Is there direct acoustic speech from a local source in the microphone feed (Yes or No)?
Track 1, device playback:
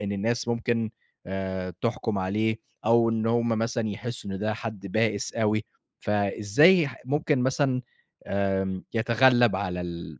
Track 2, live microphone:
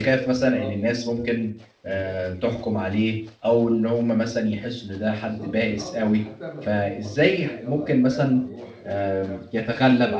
Yes